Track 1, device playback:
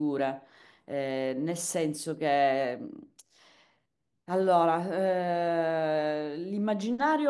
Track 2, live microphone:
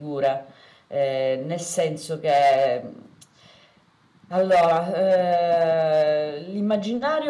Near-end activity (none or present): none